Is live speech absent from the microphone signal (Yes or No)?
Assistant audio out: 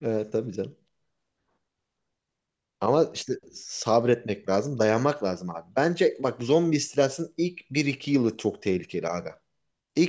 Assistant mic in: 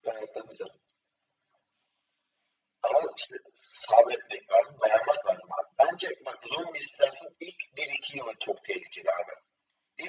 Yes